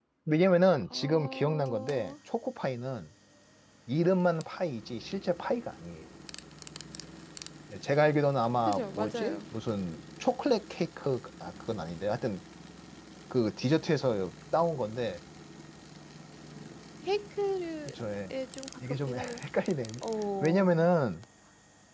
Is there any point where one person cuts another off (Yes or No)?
Yes